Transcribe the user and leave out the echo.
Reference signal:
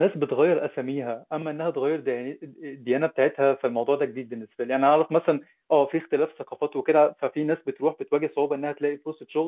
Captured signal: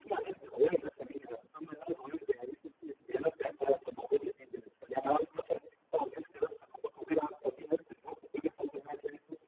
none

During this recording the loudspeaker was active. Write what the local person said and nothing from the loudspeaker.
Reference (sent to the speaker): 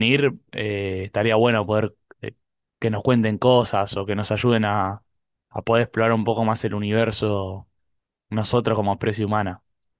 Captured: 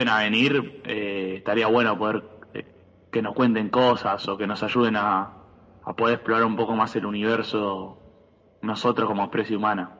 none

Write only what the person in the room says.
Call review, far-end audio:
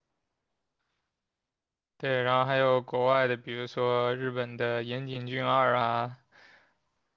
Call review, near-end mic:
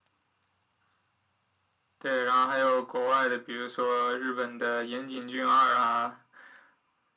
none

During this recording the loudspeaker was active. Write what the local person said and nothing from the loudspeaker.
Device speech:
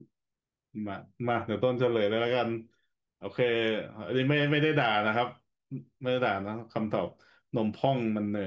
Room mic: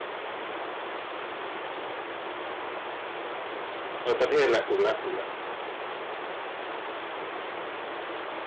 เออประเทศแหละถูกแล้วถูกแล้ว

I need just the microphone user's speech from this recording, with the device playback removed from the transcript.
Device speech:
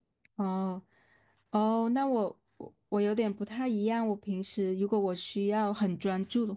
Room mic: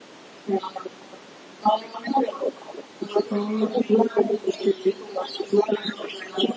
哦，

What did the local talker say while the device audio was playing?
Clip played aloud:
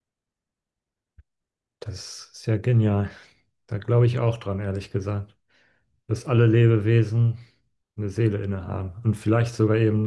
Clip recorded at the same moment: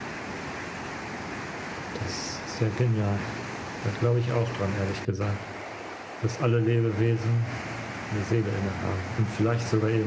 none

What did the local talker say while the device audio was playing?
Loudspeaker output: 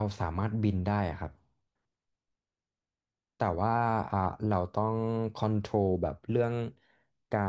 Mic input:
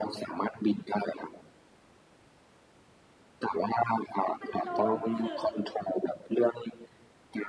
มันโดนคือ

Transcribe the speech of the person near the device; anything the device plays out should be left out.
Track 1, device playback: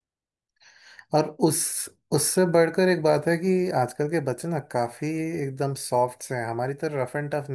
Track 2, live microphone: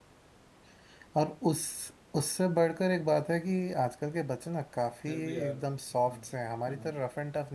फिर भी यार हाँ हाँ

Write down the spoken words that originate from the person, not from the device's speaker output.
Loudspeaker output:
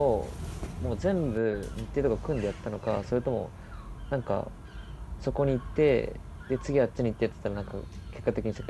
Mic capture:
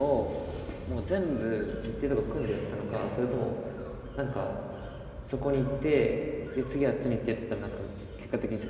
none

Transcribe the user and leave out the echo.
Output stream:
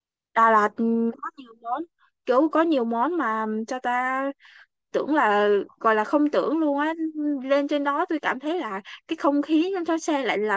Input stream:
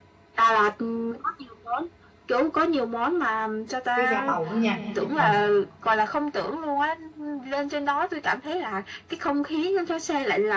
cái ga tàu nữa nha để chụp hình

